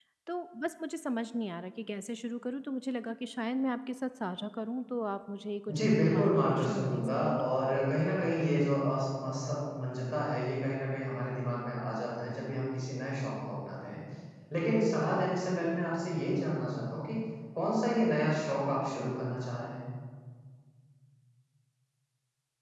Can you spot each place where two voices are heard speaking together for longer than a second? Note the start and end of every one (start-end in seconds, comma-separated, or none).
5.8-7.4